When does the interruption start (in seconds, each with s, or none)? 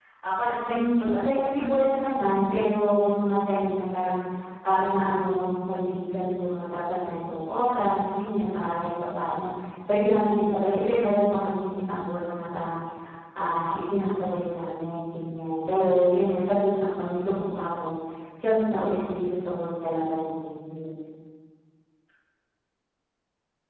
0.7 s